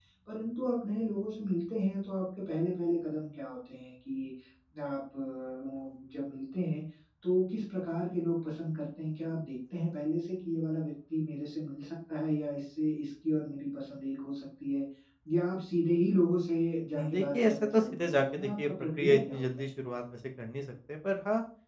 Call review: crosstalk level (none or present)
present